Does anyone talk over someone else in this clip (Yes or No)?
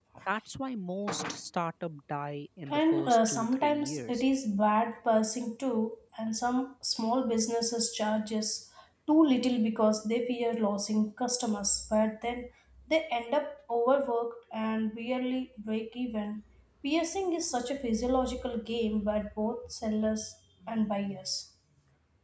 Yes